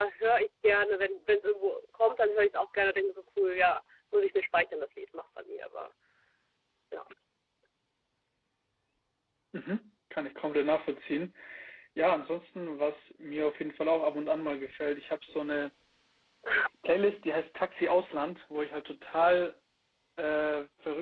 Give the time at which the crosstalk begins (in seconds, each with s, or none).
none